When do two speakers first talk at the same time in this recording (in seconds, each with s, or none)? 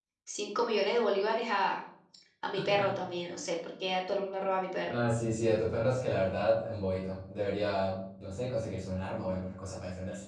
none